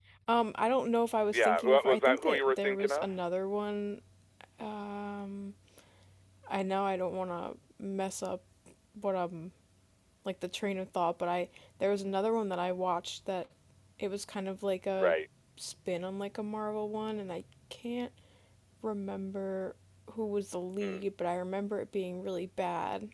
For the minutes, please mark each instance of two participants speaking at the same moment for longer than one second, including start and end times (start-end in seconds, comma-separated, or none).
1.3-3.1